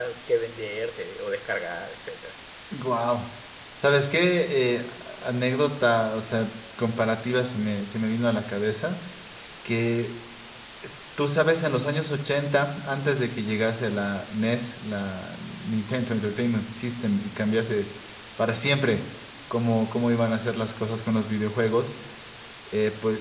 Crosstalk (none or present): none